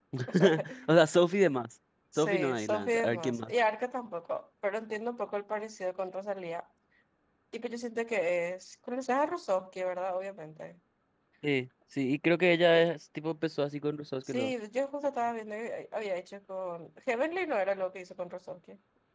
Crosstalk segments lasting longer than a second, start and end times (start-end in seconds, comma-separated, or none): 2.2-3.5